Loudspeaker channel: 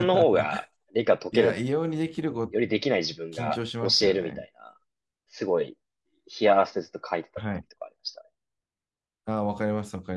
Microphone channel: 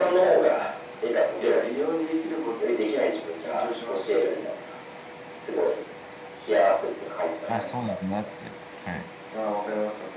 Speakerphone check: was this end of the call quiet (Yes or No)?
No